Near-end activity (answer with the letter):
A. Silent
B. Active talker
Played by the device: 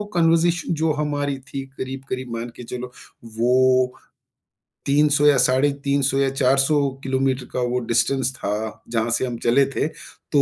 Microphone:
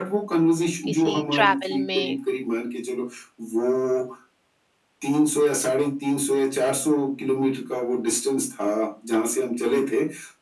B